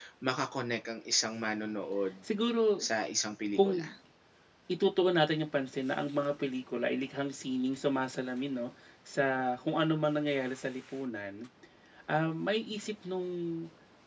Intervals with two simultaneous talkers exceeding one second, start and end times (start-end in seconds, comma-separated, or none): none